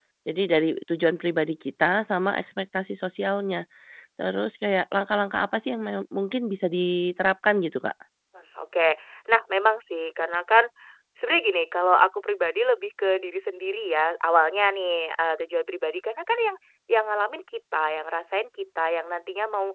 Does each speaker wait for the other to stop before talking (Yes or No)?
Yes